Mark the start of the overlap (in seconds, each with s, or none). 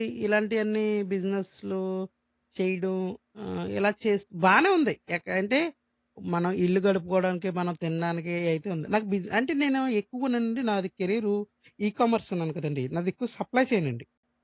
none